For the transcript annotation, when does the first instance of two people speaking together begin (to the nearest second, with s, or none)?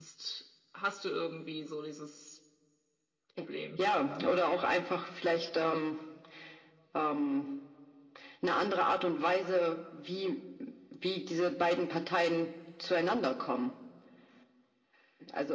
none